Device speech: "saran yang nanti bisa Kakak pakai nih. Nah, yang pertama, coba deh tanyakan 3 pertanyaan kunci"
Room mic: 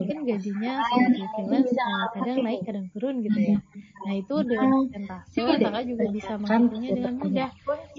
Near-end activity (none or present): present